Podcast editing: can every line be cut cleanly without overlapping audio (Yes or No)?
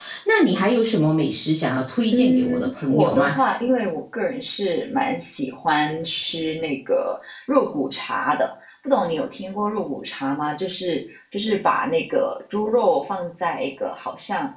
No